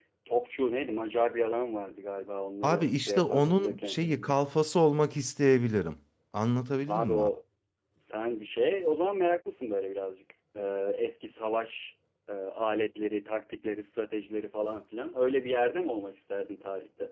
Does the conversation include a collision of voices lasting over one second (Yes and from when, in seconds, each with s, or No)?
Yes, from 2.6 s